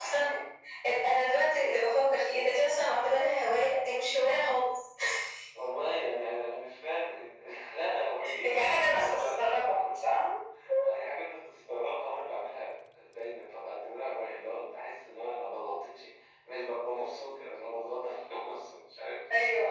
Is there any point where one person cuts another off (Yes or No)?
Yes